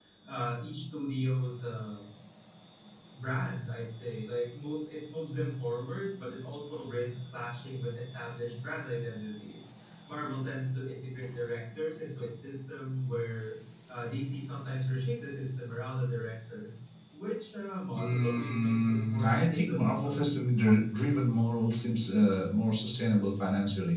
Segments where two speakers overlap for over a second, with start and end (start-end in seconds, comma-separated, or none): 17.9-20.3